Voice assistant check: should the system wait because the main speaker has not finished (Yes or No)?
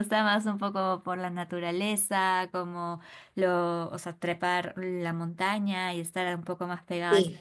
Yes